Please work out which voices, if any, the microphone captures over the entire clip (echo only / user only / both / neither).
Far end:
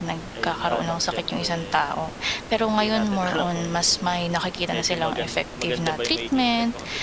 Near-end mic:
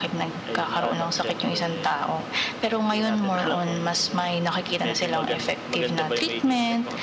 echo only